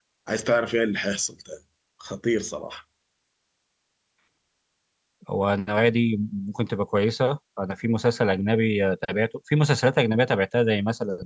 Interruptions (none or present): none